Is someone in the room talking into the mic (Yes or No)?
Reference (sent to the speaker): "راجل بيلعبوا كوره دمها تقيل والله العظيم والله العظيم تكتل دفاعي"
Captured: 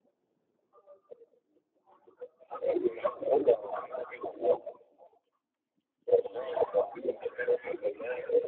No